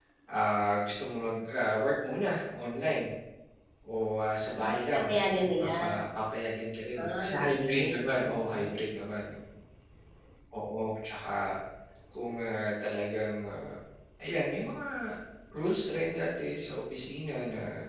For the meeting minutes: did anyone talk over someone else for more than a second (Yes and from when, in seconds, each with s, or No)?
Yes, from 4.6 s